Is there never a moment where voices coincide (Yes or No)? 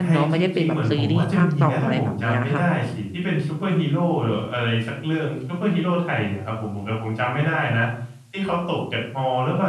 No